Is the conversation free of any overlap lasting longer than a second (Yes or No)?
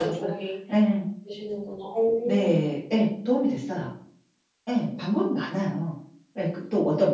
Yes